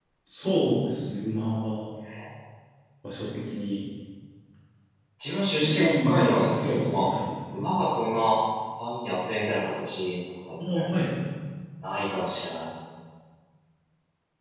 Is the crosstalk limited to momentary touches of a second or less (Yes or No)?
No